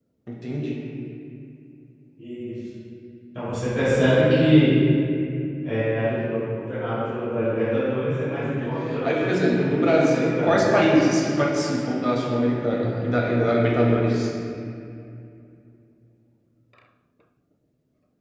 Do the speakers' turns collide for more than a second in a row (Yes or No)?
Yes